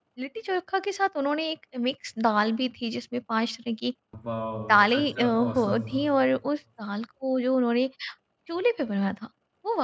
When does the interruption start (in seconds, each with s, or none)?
4.6 s